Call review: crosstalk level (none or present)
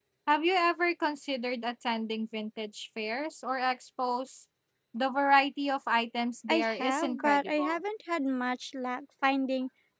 present